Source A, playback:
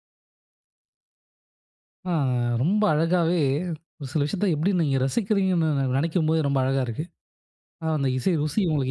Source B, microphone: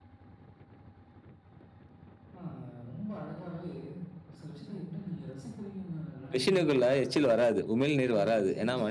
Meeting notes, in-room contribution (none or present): present